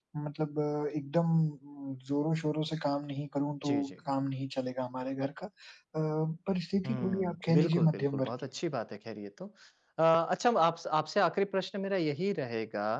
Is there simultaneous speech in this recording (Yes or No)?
Yes